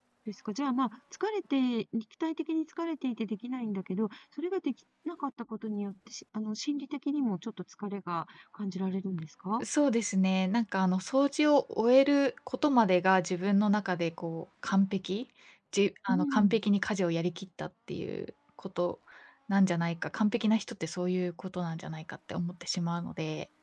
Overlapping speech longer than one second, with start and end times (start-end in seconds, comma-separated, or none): none